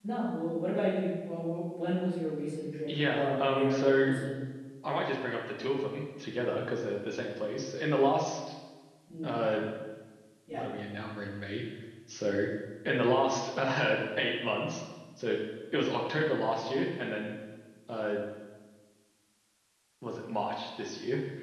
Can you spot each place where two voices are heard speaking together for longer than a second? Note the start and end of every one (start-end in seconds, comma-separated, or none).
2.9-4.1